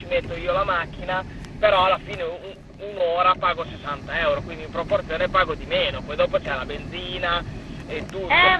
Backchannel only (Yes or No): No